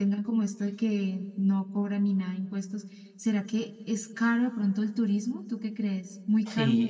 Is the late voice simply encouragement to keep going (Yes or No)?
No